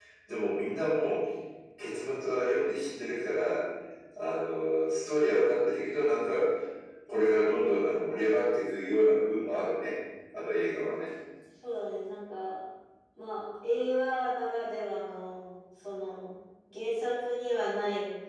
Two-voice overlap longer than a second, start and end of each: none

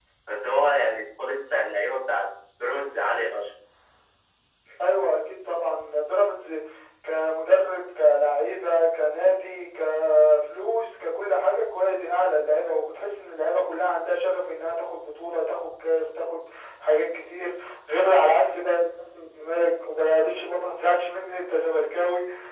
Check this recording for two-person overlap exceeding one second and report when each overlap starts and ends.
none

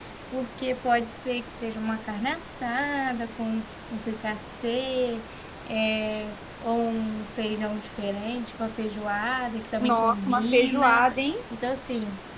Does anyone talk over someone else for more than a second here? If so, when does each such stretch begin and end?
9.8-11.0

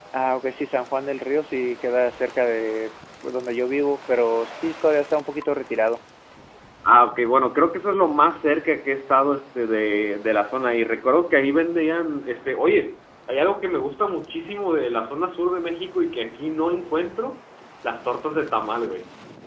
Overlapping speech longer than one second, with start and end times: none

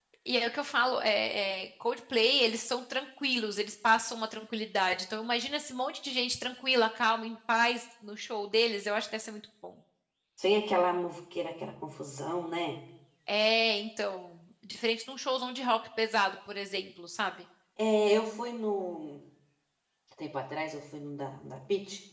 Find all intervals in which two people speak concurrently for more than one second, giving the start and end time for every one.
none

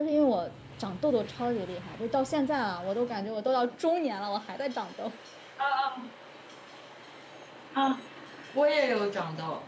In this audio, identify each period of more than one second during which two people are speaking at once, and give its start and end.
none

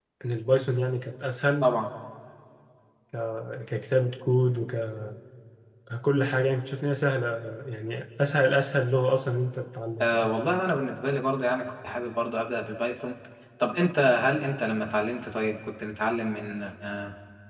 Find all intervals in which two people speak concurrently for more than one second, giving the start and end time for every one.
none

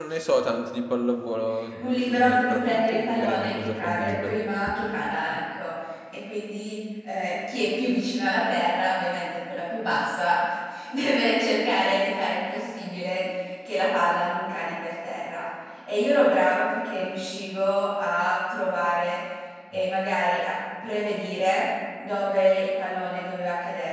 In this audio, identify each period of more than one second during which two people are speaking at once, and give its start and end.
1.8-4.4

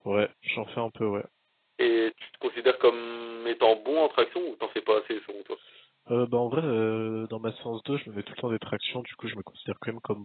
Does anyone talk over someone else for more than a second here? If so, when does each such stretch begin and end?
none

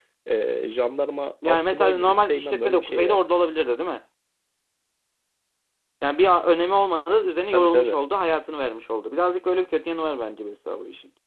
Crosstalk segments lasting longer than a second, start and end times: 1.5-3.2

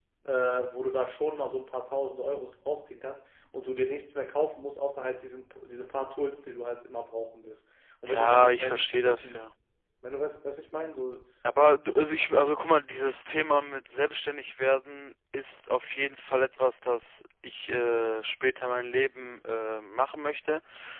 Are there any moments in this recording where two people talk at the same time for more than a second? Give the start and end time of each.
8.0-9.4

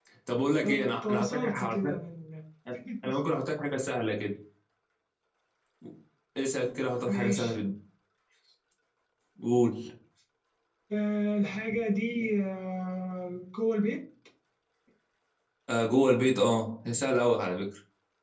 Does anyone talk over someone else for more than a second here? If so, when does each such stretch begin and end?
0.7-1.9

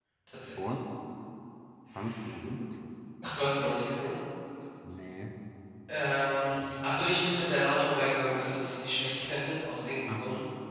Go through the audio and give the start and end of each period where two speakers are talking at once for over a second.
none

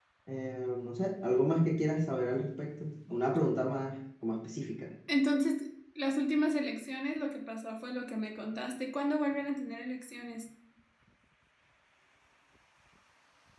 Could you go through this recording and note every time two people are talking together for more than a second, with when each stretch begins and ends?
none

